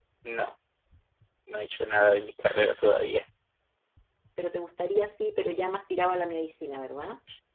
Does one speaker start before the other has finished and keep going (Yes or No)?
No